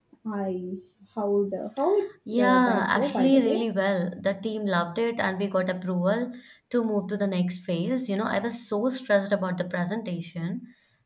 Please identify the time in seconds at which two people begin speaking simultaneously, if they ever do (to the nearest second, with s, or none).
2 s